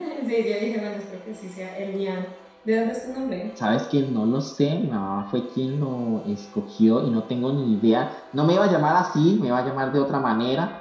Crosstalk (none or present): none